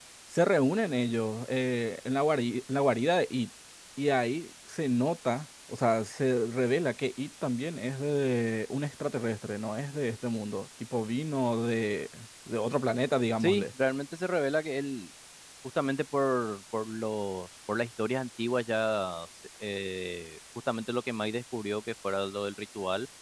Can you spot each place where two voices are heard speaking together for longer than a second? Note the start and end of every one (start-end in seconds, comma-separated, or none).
none